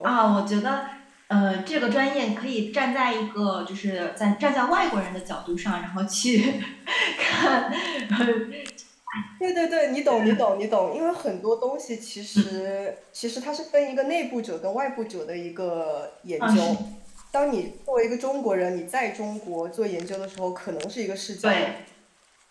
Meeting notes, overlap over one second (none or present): none